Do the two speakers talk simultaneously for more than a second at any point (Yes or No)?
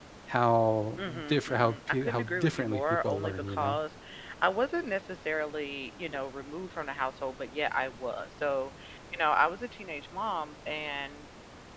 Yes